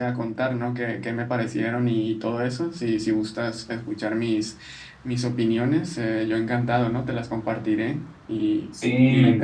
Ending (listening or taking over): taking over